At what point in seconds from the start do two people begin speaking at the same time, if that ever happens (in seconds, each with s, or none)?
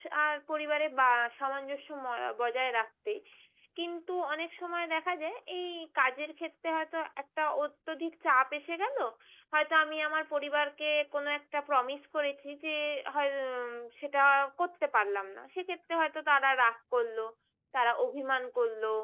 none